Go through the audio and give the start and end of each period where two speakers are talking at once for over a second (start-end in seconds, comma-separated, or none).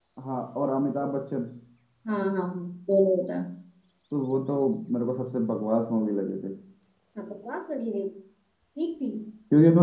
none